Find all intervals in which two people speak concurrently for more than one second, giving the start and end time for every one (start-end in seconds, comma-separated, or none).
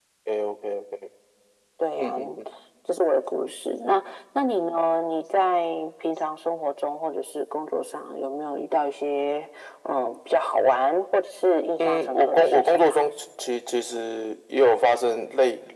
11.8-13.0